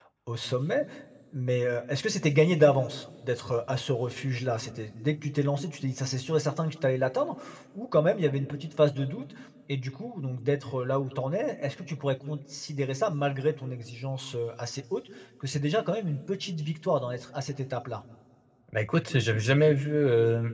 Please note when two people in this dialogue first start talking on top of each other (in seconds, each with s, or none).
none